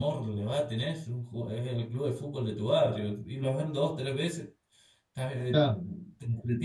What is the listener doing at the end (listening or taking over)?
listening